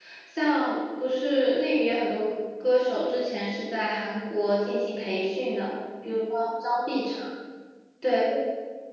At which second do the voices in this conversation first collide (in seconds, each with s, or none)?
none